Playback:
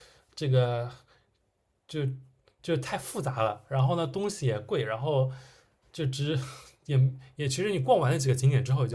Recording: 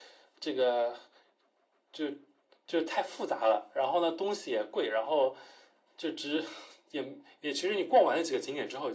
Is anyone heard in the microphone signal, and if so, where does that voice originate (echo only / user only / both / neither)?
echo only